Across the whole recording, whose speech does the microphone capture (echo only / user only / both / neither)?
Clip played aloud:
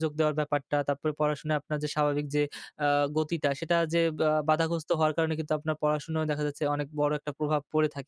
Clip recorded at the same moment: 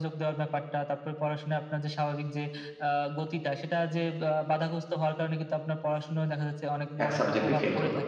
both